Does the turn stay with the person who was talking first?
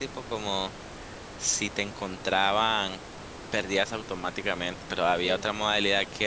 Yes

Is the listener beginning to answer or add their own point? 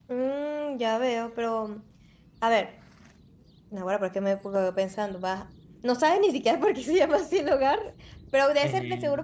No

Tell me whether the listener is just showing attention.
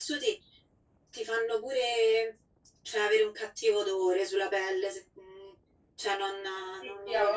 No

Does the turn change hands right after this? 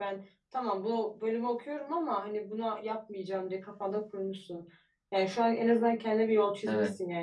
No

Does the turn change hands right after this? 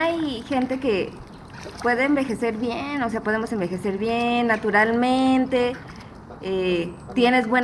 No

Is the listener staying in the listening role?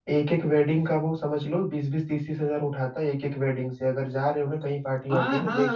No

